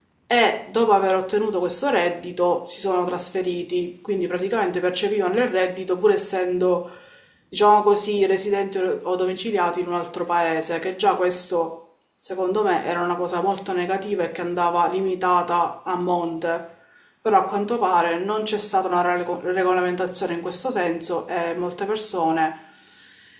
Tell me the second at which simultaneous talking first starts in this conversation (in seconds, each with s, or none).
none